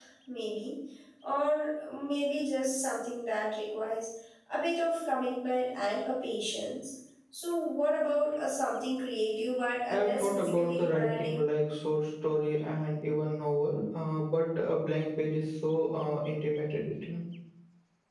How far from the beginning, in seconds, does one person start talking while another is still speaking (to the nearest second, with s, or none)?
10 s